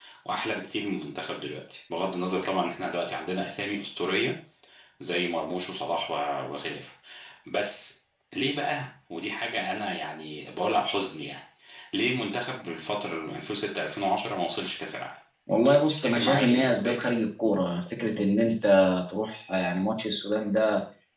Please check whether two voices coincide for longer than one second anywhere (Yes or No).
Yes